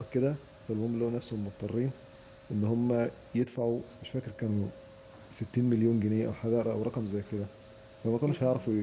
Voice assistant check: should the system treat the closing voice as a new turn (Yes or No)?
No